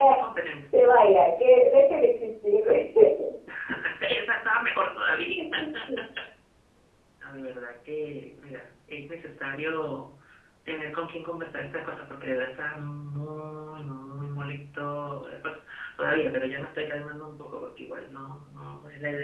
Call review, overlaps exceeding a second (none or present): none